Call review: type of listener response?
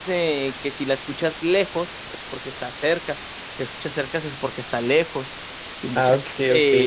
taking over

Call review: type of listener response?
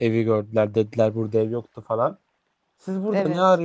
listening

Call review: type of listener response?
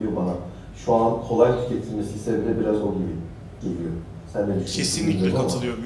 taking over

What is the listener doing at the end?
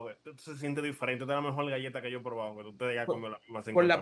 taking over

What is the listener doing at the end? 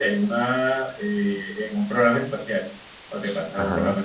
listening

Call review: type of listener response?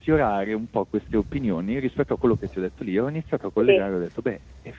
listening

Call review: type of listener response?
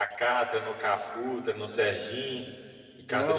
taking over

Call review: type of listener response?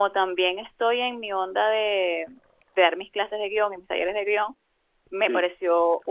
listening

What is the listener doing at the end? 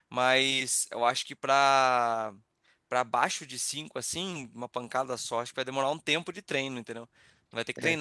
listening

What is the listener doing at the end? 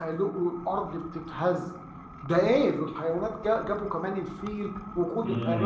taking over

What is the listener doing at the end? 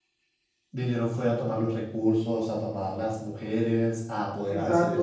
taking over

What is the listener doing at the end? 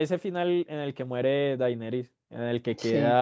listening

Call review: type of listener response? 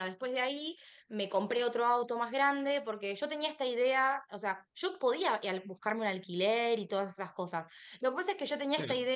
listening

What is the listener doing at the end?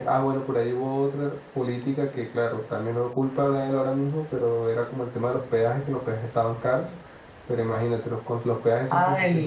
taking over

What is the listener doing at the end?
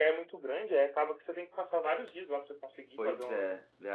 taking over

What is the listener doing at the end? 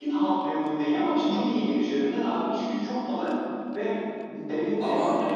listening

